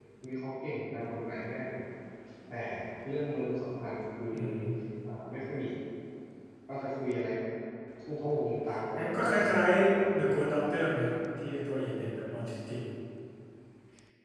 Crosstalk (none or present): present